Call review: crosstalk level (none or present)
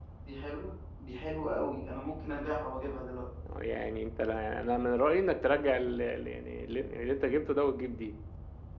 none